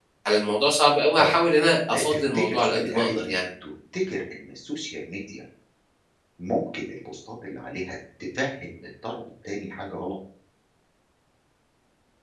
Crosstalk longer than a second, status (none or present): present